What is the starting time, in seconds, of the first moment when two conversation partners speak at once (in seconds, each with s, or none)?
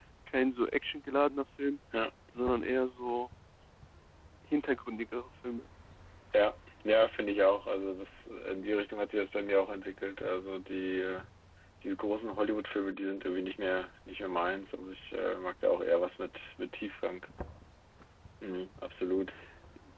none